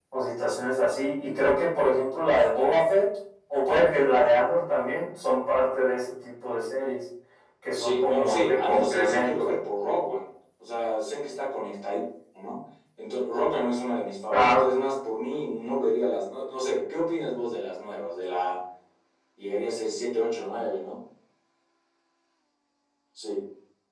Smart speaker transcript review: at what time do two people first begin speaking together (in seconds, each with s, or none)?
7.8 s